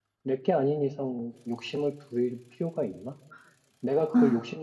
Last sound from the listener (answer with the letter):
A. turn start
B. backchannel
B